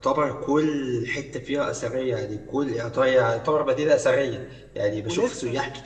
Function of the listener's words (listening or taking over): listening